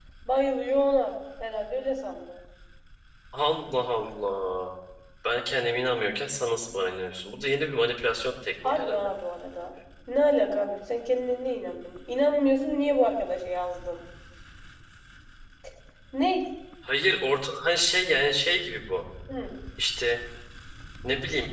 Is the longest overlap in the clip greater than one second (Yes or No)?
No